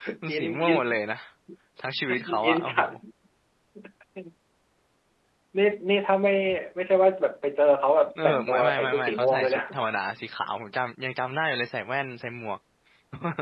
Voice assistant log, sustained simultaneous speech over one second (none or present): present